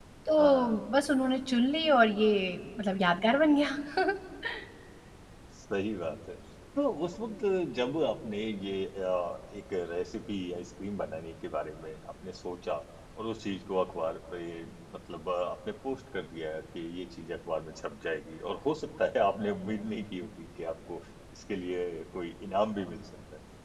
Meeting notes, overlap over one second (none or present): none